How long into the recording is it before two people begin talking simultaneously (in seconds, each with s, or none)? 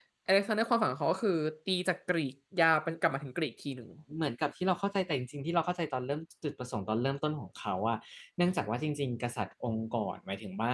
none